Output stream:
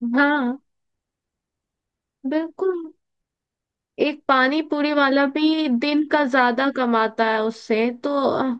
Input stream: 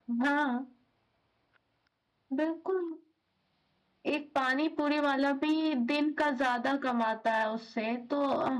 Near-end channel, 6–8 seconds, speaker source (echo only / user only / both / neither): echo only